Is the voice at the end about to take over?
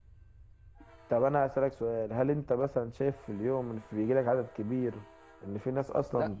Yes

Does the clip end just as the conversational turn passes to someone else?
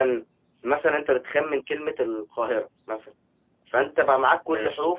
No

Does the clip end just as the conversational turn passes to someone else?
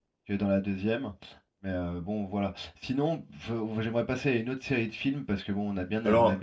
No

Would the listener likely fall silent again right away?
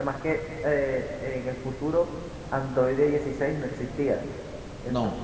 Yes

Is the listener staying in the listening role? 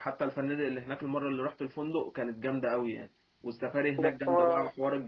Yes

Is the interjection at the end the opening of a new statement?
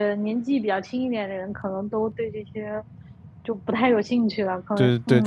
Yes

